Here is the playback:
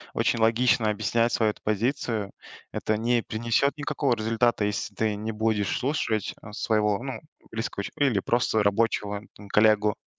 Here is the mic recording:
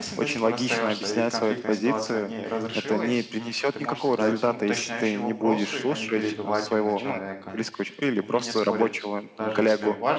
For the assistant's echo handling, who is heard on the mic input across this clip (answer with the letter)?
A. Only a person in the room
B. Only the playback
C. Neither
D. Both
D